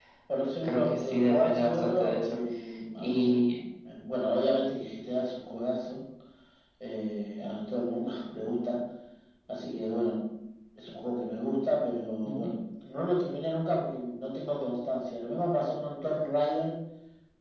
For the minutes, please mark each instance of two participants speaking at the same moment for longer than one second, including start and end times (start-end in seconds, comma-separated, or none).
0.6-2.4